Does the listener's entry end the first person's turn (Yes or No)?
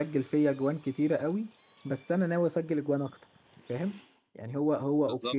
No